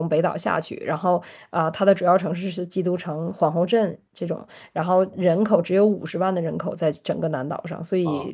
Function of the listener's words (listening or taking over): taking over